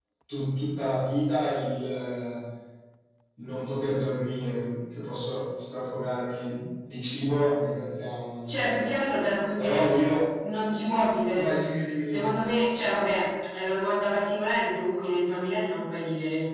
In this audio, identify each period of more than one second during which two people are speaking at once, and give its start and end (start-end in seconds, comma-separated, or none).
none